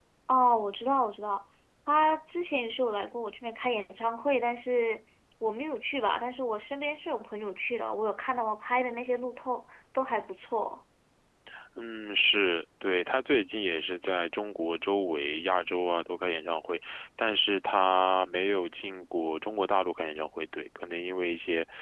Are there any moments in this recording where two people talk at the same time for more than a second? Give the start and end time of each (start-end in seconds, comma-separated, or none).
none